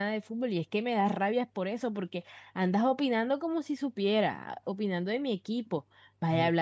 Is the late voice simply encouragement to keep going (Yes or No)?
Yes